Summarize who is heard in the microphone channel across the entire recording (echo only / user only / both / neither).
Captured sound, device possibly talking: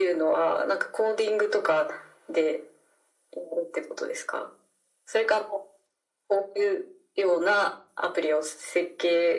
echo only